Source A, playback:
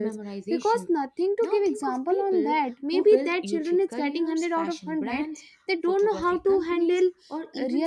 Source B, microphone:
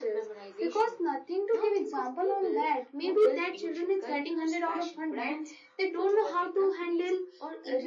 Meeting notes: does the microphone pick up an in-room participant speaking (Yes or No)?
No